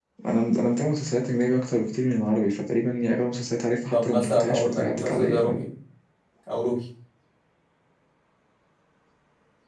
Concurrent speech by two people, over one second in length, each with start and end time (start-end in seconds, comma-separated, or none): 3.9-5.6